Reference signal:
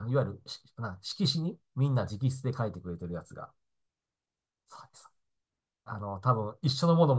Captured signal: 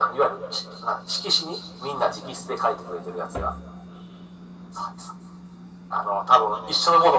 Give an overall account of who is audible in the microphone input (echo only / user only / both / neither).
echo only